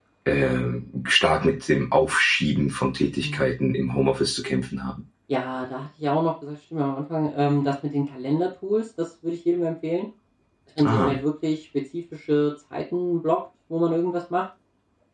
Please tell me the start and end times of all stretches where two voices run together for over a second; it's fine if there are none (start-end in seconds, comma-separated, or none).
none